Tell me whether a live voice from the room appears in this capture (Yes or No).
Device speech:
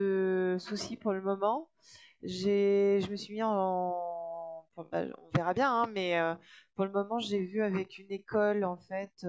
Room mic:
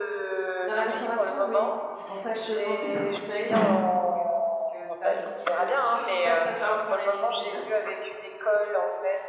Yes